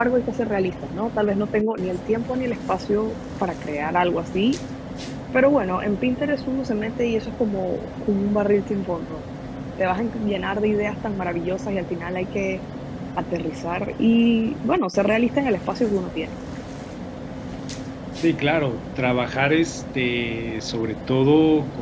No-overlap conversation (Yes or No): Yes